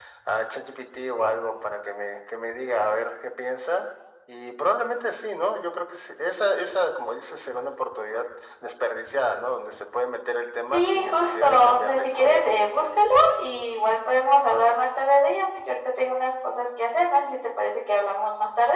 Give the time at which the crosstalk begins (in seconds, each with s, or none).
10.7 s